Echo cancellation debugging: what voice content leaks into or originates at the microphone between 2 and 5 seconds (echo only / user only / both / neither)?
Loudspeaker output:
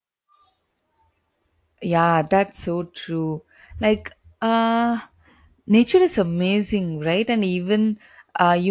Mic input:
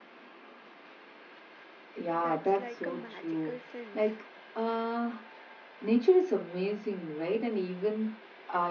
both